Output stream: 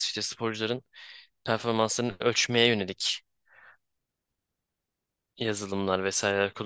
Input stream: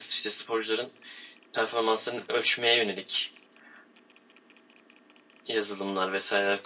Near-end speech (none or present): none